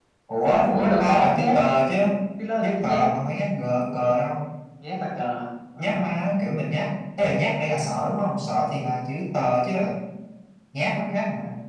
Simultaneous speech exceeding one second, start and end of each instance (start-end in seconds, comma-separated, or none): 0.7-1.9